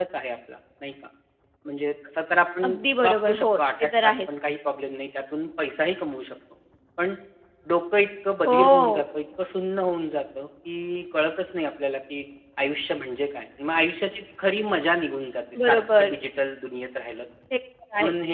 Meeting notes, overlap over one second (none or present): present